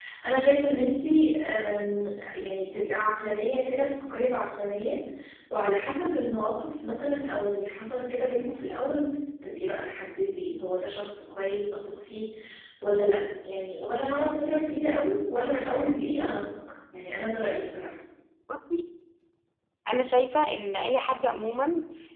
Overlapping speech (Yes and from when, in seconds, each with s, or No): No